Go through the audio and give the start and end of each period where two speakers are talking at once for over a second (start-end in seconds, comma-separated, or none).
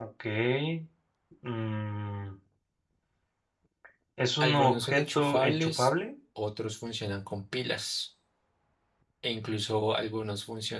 4.4-5.9